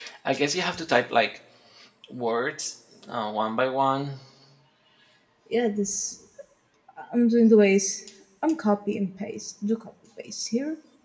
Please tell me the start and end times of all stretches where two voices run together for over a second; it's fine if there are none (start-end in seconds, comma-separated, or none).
none